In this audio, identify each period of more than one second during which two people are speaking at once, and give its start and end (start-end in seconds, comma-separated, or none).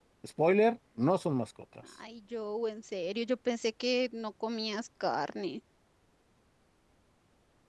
none